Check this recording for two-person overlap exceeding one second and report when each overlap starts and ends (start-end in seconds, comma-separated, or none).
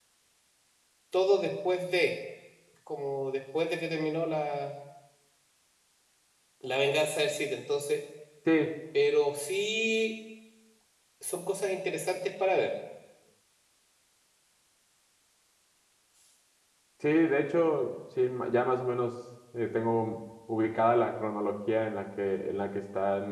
none